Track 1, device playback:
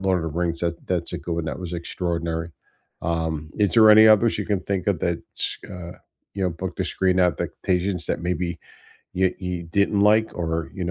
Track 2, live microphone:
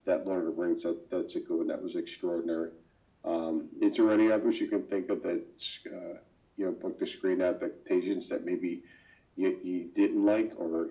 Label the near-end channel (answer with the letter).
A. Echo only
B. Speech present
A